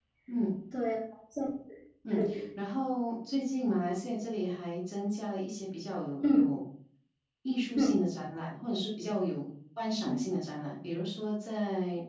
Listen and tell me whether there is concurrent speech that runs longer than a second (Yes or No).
No